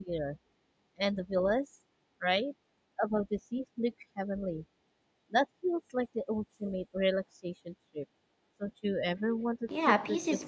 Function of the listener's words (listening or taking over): taking over